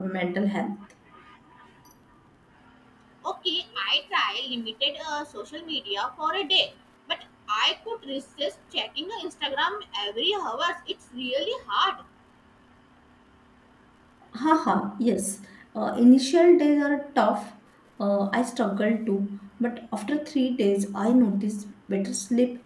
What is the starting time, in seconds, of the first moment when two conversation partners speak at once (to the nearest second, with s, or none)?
none